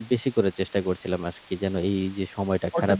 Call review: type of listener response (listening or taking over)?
taking over